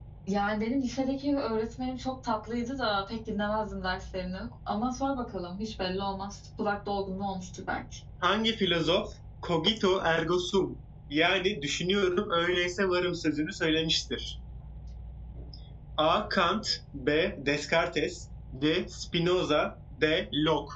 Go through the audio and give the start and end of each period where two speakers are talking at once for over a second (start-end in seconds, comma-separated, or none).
none